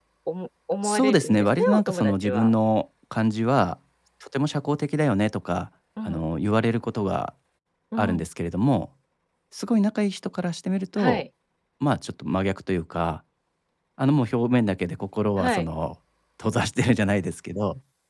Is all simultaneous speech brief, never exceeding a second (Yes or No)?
No